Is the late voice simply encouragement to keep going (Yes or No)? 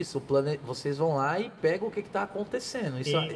No